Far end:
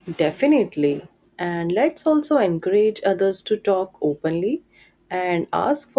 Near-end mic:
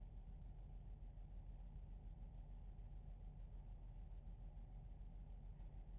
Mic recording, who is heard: neither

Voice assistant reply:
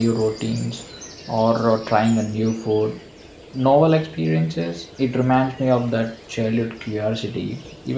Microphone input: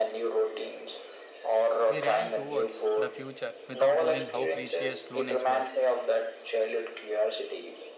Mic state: both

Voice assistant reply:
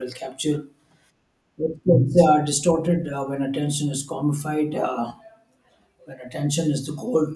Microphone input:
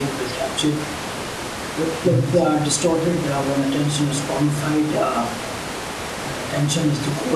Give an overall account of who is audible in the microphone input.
echo only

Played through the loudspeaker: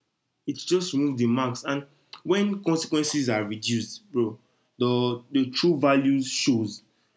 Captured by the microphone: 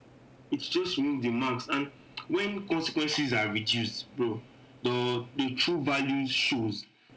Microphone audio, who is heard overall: echo only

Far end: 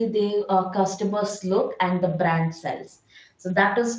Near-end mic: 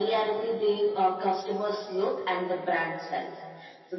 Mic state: echo only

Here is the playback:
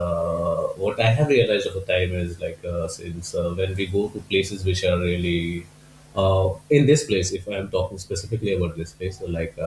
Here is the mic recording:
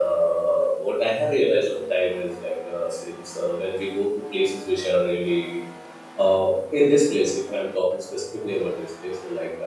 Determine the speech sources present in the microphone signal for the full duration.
echo only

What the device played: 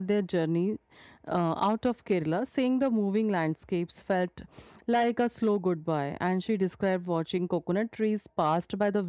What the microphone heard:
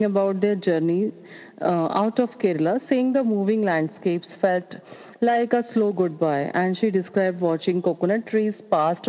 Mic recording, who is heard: echo only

